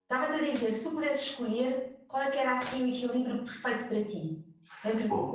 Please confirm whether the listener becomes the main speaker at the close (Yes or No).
Yes